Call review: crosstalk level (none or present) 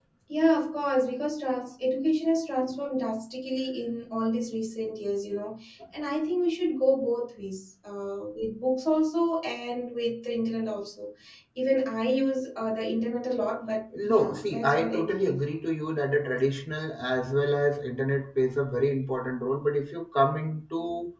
present